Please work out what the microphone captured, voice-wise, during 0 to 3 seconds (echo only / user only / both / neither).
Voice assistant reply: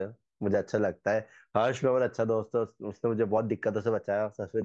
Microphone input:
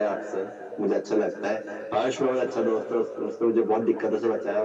echo only